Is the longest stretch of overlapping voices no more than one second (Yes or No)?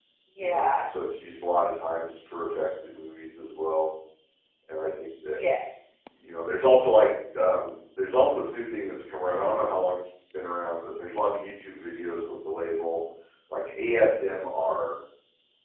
Yes